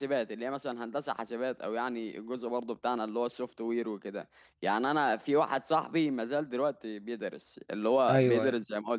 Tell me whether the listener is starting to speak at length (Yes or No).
No